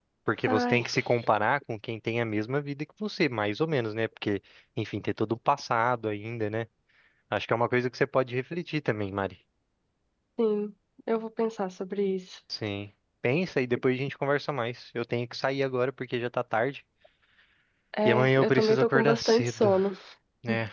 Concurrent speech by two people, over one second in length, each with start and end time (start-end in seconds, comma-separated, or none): 18.1-19.7